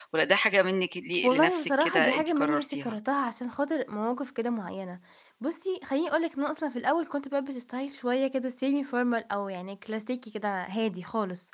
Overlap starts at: 1.2 s

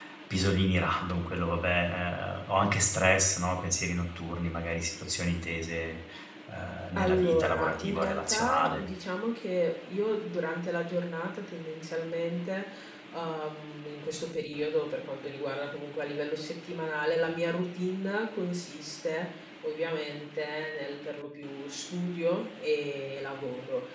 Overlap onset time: 7.0 s

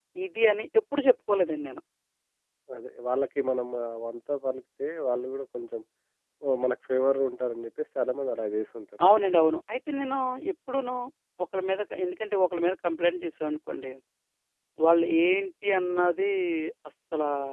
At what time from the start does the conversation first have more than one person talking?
none

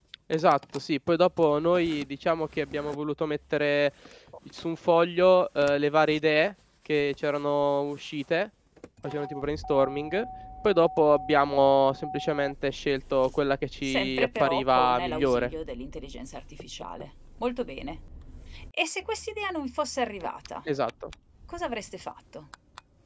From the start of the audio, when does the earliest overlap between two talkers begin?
13.8 s

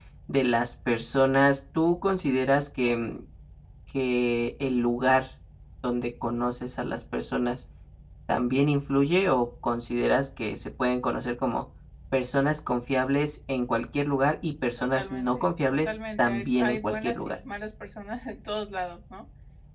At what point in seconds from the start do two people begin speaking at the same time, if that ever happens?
14.9 s

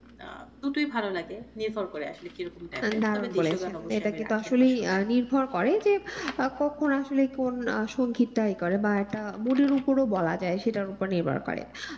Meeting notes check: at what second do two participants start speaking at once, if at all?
2.8 s

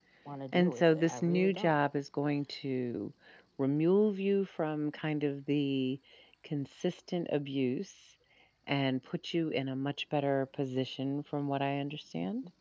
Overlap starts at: 0.5 s

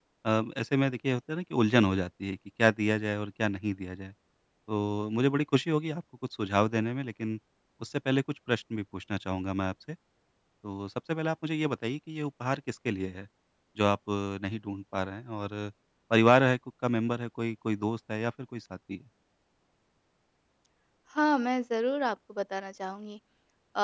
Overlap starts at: none

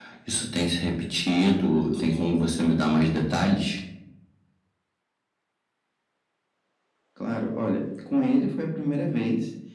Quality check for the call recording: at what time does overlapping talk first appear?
none

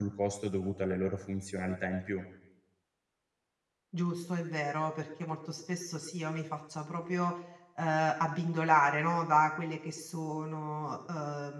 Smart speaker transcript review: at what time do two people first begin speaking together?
none

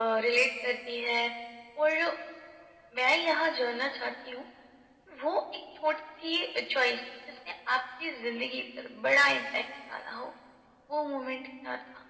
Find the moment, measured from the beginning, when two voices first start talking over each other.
none

